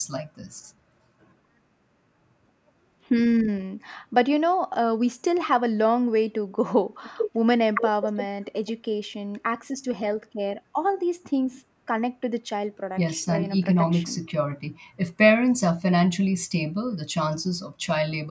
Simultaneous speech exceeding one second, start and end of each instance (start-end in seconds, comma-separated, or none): 13.0-14.2